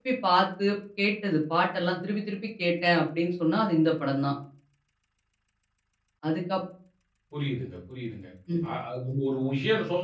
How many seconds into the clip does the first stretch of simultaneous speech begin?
none

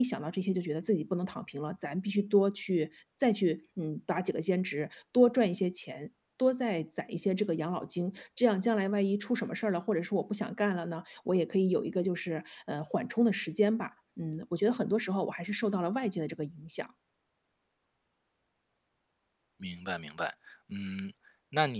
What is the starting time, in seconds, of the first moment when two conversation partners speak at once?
none

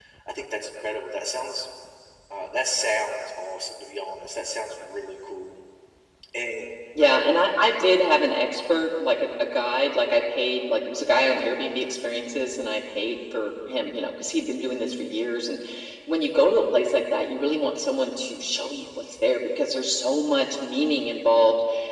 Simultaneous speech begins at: none

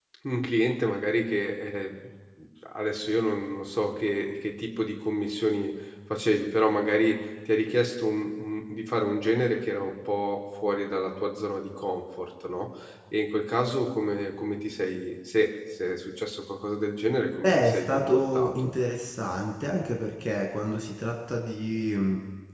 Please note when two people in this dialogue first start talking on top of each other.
17.4 s

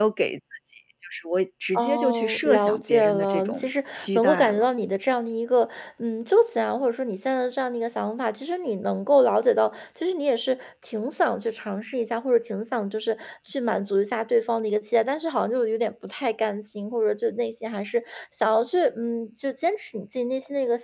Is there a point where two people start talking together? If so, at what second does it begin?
1.7 s

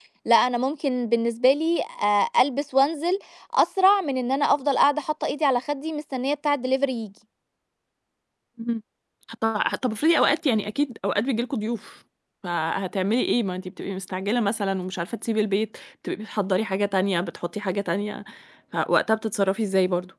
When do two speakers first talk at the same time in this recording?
none

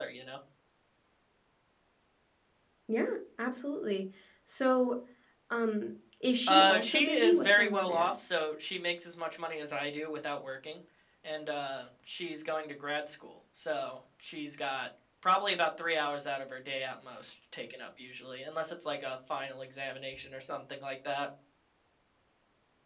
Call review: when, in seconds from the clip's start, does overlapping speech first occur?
6.5 s

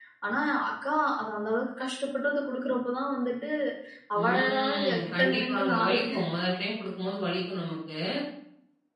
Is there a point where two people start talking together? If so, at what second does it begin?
4.2 s

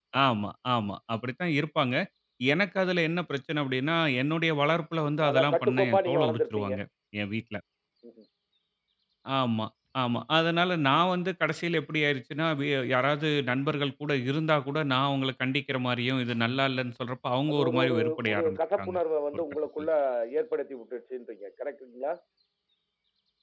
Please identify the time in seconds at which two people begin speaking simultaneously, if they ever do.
5.3 s

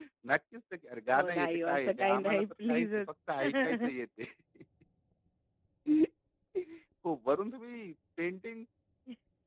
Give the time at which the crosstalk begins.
1.1 s

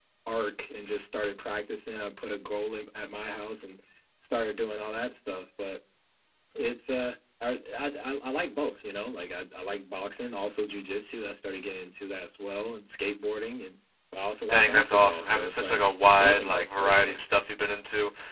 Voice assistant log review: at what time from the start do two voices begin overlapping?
14.5 s

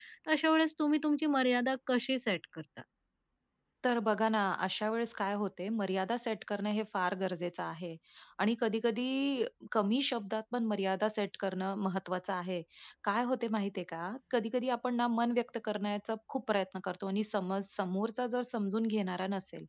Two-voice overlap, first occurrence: none

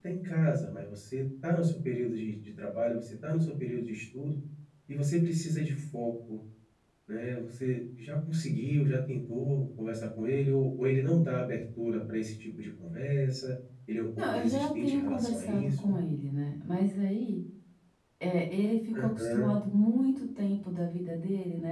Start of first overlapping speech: 14.2 s

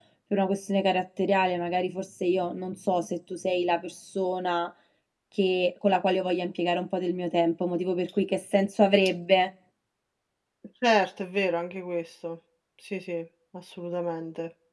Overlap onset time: none

